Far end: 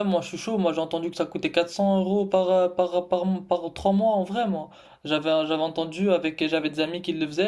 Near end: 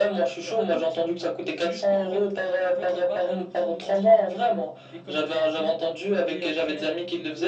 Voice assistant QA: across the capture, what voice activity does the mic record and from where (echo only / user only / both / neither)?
both